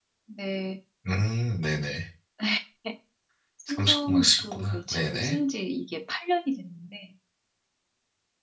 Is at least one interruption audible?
Yes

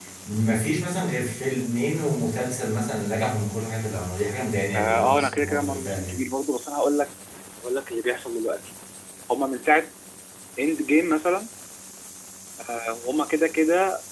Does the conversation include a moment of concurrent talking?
Yes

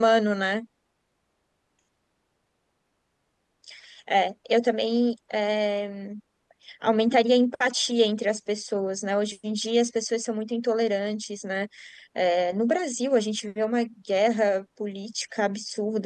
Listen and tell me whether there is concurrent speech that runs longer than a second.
No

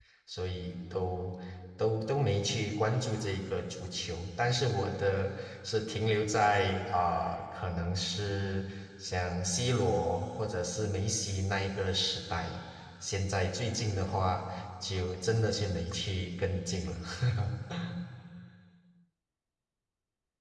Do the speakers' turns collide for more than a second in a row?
No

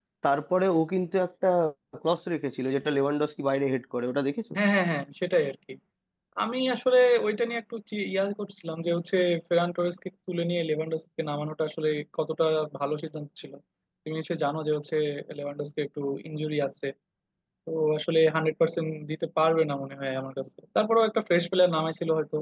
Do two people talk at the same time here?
No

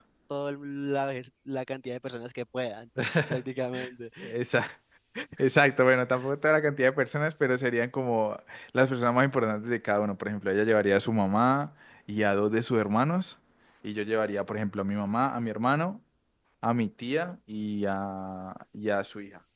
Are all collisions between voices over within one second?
Yes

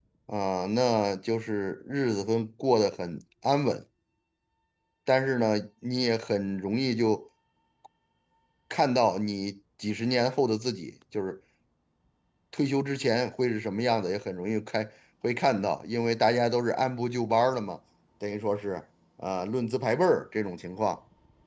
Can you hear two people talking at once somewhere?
No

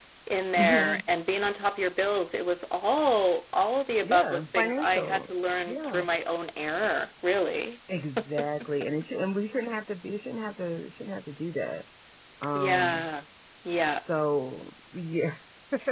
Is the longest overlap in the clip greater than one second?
Yes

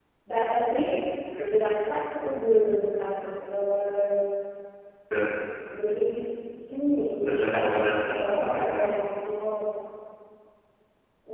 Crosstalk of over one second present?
Yes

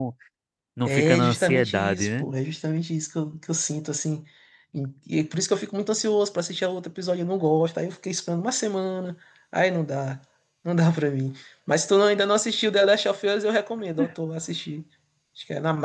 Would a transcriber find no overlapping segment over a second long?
No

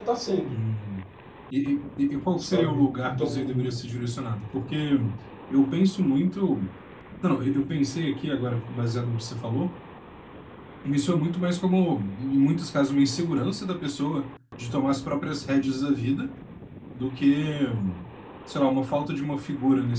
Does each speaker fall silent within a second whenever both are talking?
No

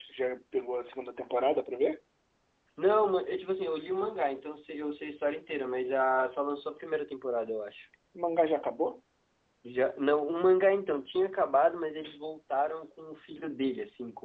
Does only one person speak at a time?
Yes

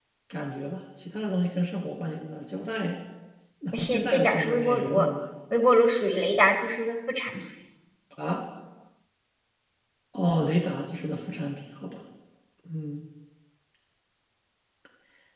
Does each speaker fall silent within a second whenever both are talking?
No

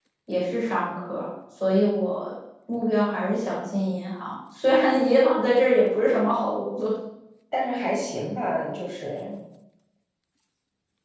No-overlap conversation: Yes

